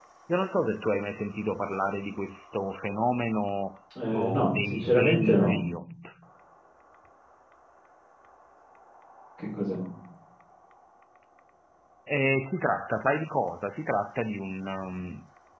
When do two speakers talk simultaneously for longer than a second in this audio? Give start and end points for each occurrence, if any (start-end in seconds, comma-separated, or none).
4.1-5.6